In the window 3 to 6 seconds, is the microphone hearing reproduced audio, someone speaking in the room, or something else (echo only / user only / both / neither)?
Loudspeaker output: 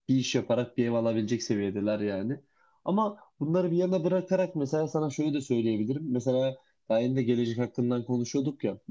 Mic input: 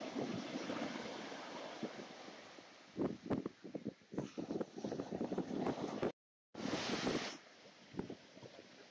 neither